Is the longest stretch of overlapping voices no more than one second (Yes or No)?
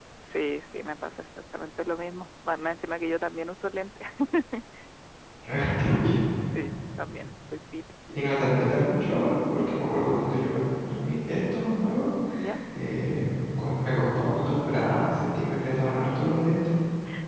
Yes